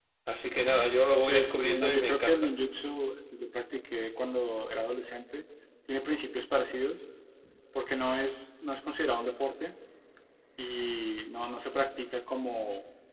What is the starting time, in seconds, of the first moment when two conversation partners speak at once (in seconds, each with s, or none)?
1.2 s